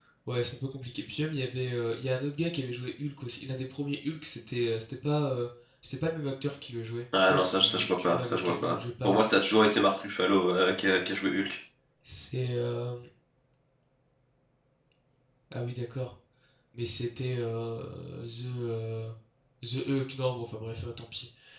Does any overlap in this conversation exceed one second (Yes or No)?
Yes